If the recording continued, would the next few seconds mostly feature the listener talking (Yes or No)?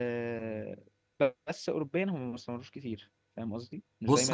Yes